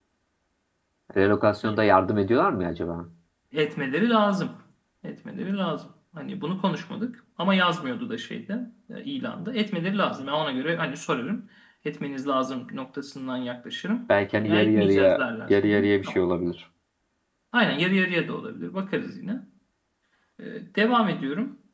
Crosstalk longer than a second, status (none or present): present